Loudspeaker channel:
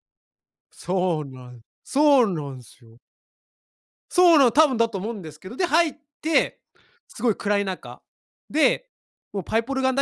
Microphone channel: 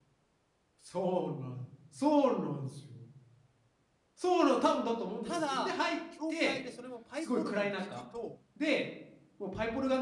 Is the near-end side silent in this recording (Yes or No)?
No